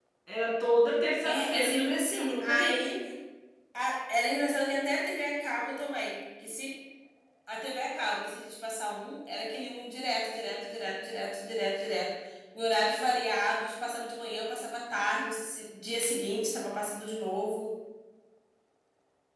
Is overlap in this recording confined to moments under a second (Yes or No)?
No